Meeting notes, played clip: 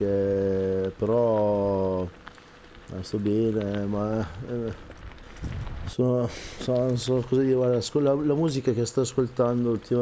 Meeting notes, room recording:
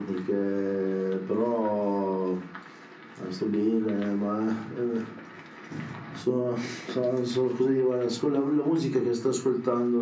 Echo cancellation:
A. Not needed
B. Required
B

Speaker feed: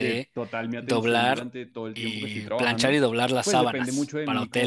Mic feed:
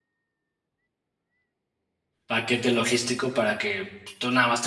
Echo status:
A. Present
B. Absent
B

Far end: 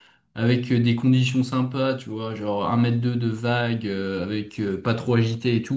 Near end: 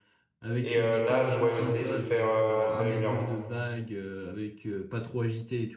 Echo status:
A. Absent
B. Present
B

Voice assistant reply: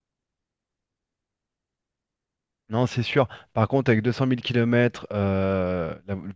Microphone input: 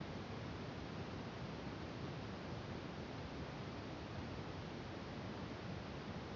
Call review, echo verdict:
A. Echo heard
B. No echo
B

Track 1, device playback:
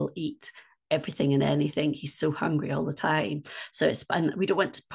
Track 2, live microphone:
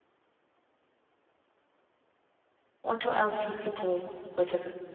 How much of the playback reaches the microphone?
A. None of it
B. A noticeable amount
A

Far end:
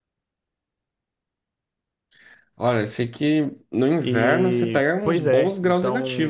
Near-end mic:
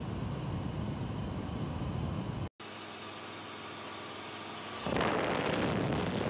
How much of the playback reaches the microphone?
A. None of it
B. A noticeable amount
A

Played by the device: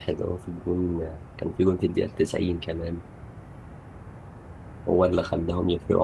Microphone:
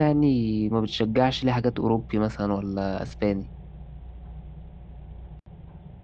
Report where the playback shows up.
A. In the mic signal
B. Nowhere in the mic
B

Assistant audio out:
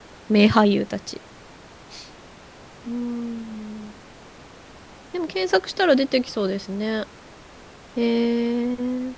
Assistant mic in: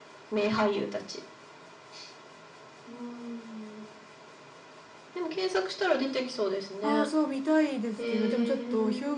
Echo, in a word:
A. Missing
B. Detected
B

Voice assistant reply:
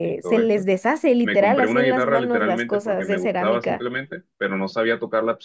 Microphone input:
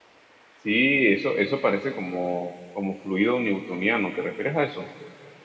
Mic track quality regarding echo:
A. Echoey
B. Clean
B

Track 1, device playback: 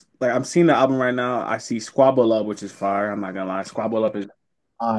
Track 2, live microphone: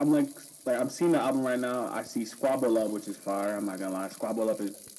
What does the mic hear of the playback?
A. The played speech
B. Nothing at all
A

